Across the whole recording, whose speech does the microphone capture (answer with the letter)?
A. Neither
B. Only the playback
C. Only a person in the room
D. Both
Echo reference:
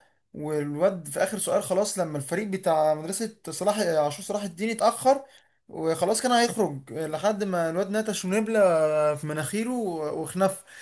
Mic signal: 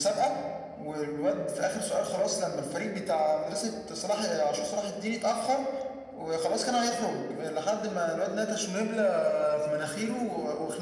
B